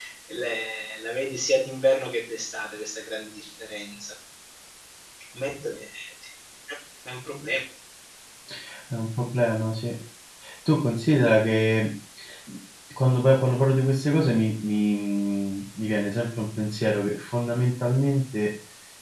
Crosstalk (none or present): none